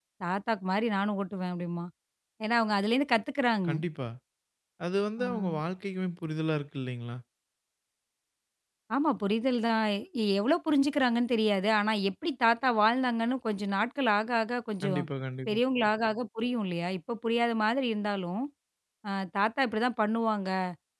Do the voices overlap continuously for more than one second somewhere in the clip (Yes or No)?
No